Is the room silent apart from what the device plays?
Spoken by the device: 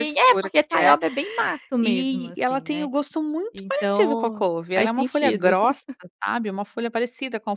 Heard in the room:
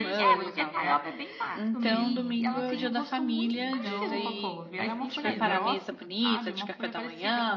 No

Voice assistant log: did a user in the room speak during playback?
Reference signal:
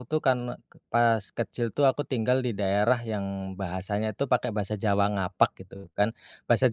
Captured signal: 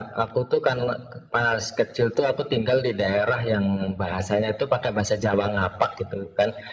No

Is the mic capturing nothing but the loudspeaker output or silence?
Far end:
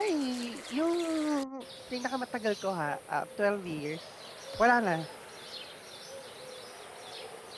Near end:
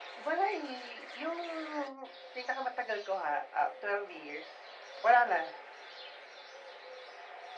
Yes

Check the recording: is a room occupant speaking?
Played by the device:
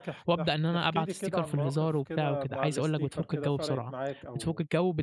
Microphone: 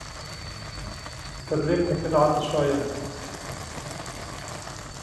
Yes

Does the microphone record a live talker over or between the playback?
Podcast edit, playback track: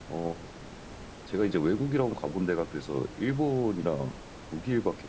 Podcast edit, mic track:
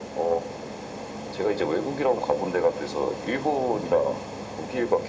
No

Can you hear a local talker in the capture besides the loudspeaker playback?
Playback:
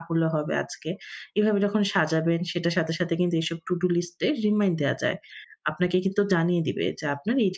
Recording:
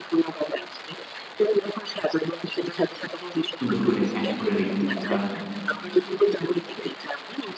Yes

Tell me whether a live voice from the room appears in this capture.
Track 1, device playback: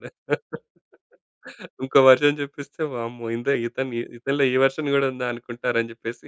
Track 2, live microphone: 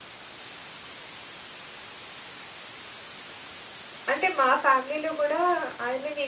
Yes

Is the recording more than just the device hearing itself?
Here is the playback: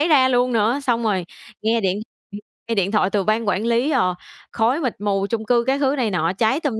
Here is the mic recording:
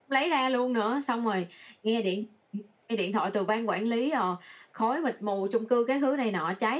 No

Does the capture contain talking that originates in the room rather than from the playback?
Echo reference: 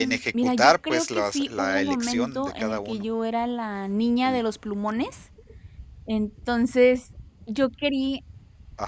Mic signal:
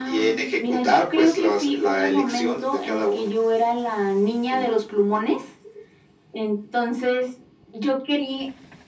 No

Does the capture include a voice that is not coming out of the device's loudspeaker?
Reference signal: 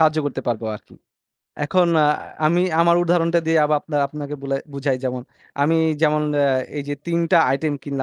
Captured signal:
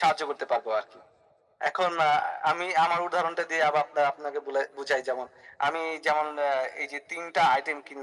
No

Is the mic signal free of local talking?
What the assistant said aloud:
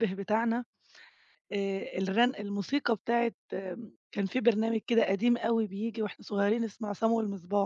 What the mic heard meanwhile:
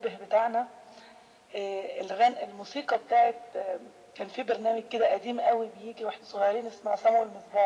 Yes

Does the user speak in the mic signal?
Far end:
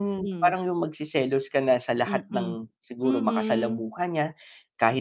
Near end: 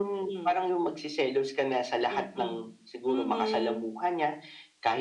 No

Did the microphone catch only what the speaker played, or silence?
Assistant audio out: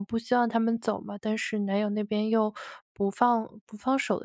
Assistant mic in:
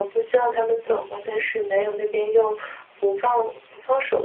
Yes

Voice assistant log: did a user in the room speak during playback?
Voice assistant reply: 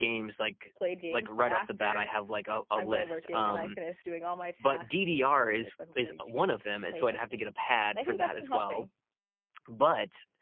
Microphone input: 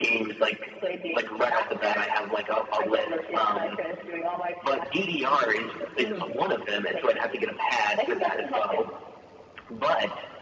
Yes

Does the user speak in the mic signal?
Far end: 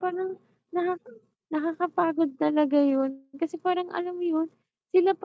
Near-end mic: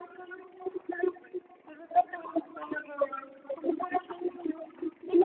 No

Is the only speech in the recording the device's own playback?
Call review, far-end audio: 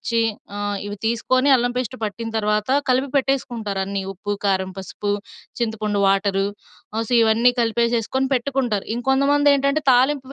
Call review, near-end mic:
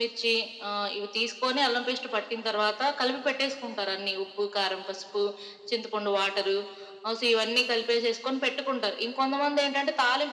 Yes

